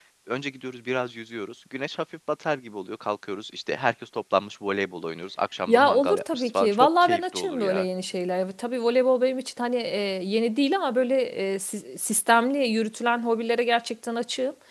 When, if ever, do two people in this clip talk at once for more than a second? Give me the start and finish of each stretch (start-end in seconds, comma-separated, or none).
5.7-7.8